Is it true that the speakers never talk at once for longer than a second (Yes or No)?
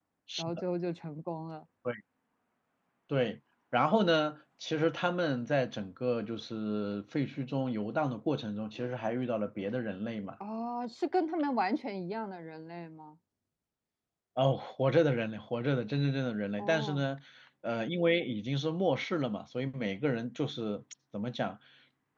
Yes